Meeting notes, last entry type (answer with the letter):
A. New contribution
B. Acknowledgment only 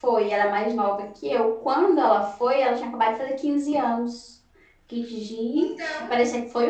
B